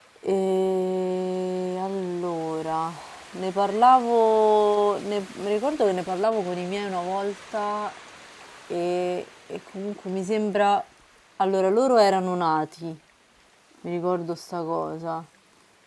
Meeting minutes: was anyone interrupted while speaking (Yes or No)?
No